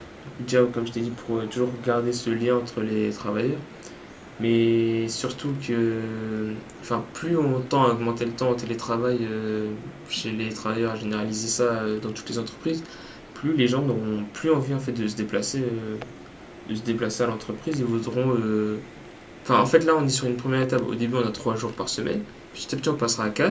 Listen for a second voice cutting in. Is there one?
No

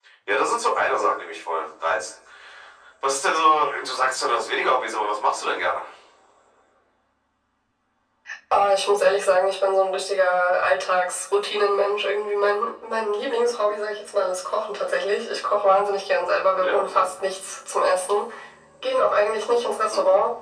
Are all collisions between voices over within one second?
Yes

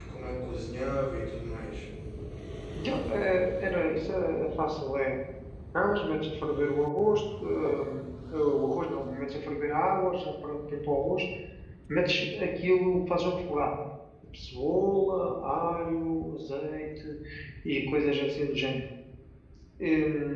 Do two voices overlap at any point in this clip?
No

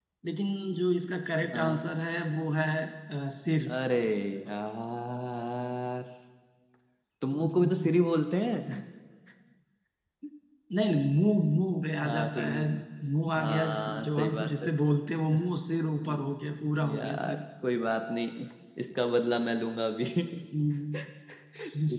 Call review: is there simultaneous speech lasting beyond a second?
Yes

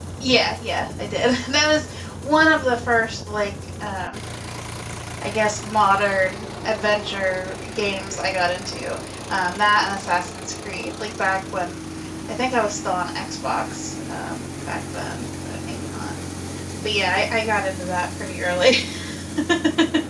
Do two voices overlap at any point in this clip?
No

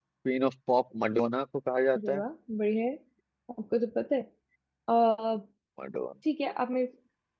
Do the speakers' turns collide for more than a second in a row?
No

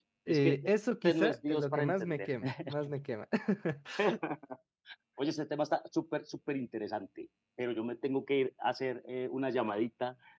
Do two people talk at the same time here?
Yes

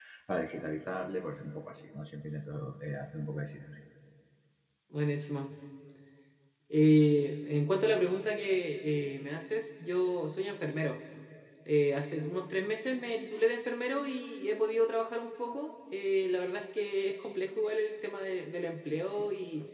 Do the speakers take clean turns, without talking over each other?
Yes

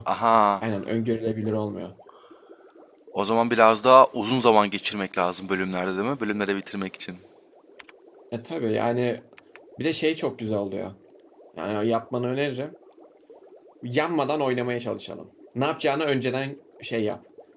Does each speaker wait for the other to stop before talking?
Yes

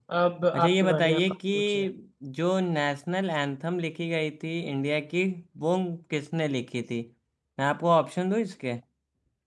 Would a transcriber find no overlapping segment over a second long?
No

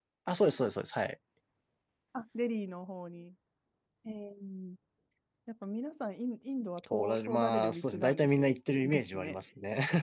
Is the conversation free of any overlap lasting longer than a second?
No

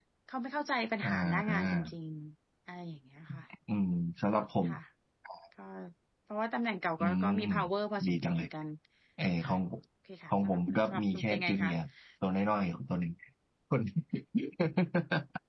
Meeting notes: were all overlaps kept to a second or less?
No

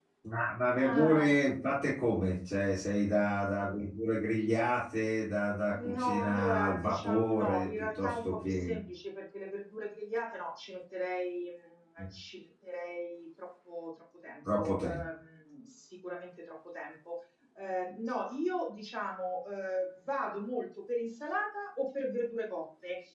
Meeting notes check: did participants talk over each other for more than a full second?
Yes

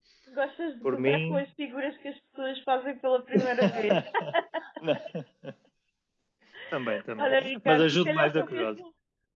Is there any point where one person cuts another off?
Yes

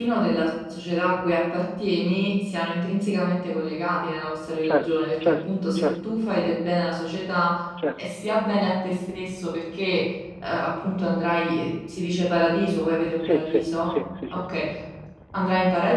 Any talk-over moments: Yes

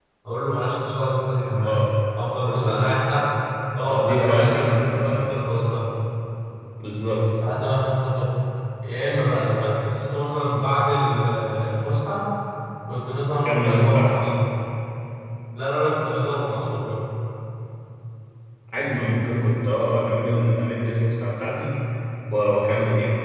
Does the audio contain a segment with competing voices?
Yes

